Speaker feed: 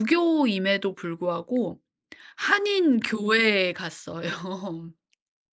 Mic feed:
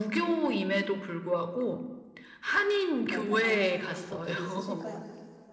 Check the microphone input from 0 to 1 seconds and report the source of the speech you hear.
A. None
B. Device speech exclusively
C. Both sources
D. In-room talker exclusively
B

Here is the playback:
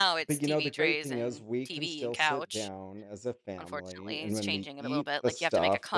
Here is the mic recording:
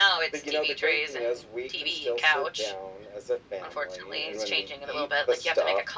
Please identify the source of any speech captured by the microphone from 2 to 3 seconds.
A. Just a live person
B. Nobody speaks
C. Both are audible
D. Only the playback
D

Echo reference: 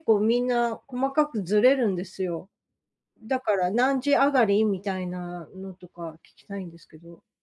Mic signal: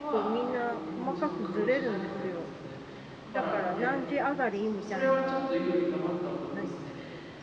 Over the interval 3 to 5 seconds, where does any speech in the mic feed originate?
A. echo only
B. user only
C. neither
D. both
D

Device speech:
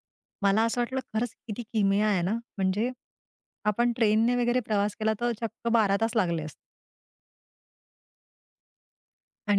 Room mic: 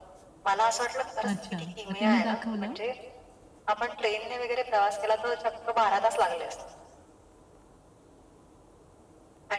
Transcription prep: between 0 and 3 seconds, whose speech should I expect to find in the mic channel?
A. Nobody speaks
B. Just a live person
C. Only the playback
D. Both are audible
D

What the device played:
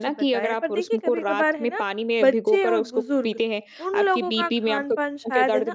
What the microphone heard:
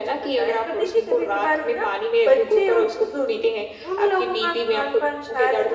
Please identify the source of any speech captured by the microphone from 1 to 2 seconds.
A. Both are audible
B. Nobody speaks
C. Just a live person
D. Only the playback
D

